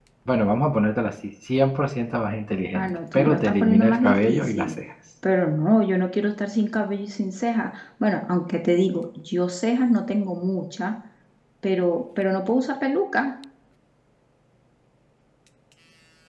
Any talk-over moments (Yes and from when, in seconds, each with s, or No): Yes, from 2.7 s